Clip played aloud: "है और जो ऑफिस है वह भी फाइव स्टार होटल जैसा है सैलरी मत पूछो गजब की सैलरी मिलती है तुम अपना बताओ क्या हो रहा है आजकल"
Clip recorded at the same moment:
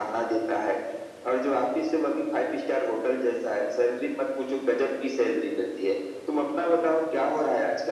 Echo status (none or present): present